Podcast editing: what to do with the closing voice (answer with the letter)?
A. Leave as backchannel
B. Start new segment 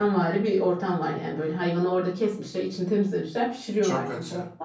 A